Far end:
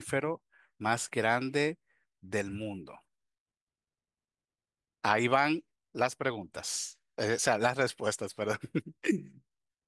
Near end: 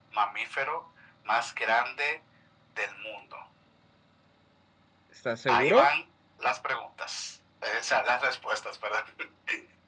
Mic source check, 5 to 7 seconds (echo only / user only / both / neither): both